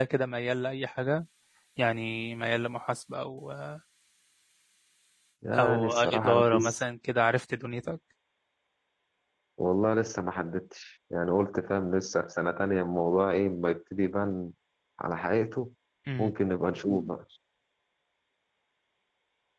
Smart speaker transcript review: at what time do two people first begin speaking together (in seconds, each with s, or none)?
5.6 s